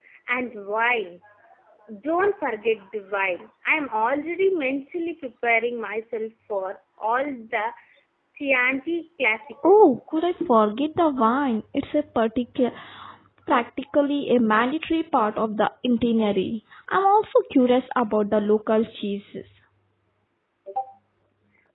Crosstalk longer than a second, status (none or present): none